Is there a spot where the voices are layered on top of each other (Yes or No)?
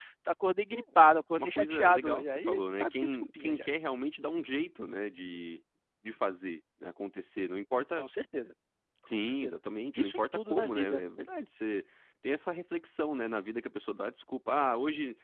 Yes